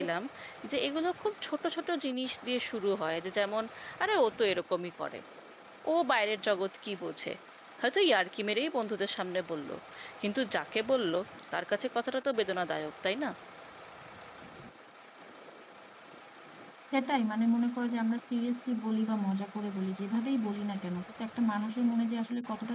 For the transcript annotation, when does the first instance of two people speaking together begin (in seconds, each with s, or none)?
none